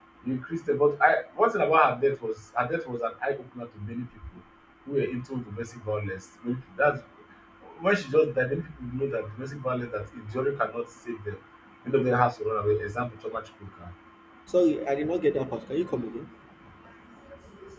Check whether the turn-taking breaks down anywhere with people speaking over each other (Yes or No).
No